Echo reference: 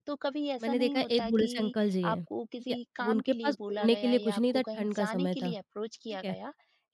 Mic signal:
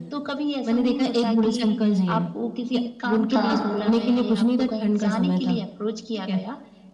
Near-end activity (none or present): present